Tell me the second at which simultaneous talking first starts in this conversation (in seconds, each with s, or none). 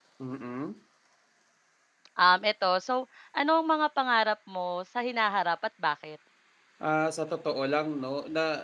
none